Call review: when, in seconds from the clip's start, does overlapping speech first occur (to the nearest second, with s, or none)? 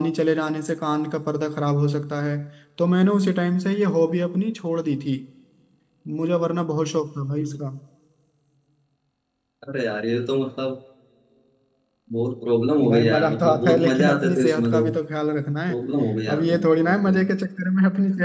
13 s